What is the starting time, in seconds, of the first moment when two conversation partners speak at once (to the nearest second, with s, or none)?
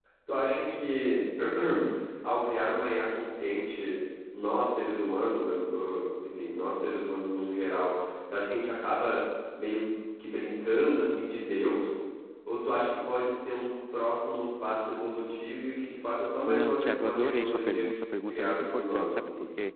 16 s